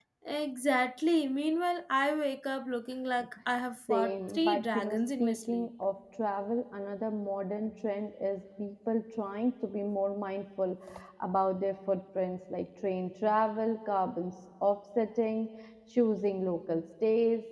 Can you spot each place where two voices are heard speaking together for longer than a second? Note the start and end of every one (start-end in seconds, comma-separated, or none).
3.9-5.7